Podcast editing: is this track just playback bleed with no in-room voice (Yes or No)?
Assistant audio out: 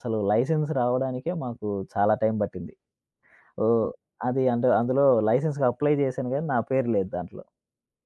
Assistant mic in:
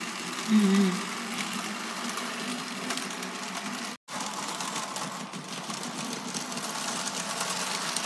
No